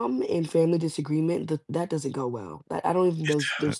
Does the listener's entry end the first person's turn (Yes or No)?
No